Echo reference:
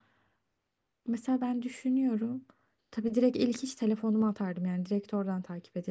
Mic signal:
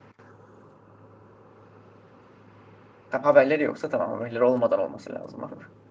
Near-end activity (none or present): present